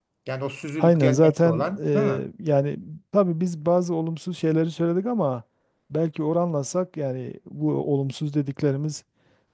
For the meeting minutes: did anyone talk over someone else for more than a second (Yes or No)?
Yes